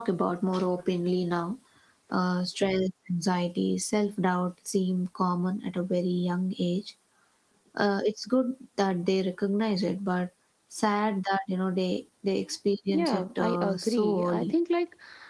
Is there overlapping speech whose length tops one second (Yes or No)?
Yes